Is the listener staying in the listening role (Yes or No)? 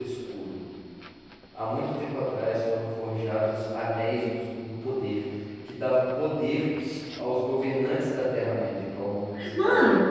No